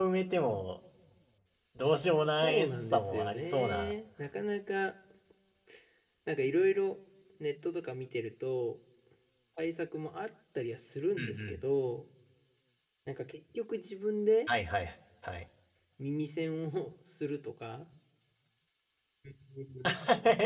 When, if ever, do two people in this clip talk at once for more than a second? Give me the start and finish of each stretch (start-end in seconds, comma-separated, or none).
2.4-3.9